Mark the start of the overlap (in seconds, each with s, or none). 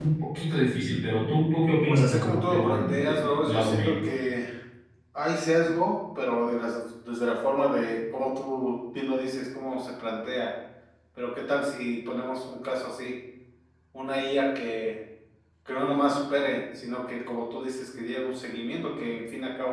1.7 s